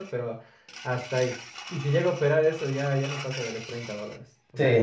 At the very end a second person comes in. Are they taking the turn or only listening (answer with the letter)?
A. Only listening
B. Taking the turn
B